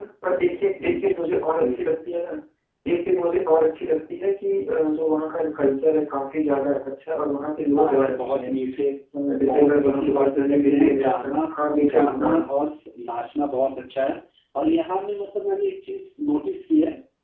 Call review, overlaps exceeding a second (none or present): present